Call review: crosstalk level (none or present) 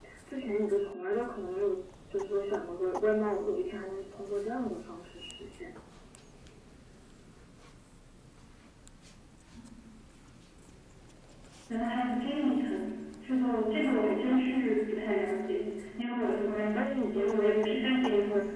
present